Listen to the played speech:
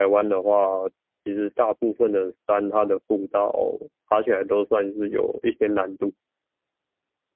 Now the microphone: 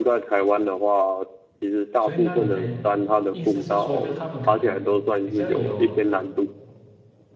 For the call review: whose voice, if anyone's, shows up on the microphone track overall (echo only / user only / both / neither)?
both